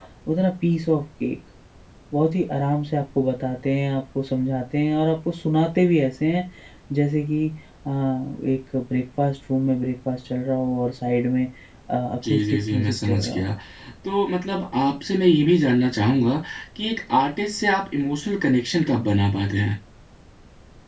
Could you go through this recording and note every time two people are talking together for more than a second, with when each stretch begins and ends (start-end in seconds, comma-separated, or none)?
12.3-13.5